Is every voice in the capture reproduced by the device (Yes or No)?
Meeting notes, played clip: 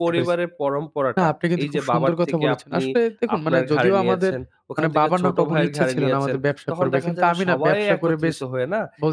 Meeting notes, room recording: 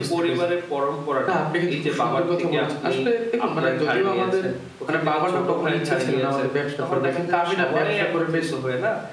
Yes